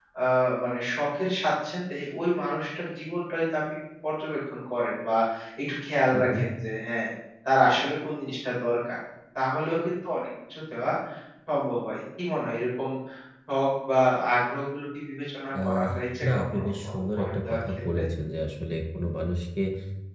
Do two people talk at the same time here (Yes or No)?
Yes